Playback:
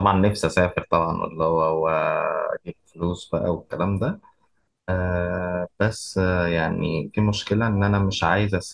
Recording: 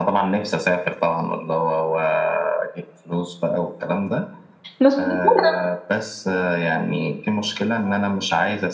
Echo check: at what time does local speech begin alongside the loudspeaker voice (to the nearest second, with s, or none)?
5 s